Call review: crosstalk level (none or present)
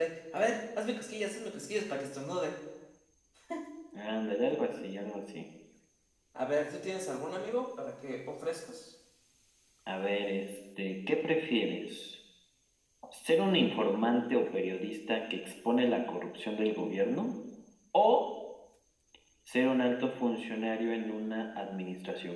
none